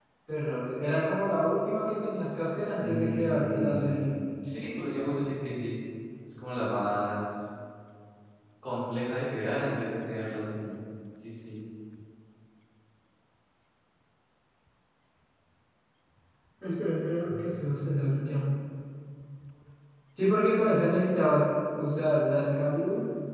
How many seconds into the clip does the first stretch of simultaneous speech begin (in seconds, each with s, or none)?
2.8 s